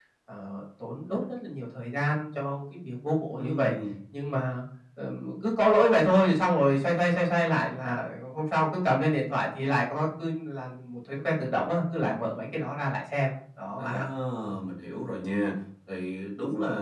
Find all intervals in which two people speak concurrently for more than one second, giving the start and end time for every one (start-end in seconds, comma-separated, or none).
none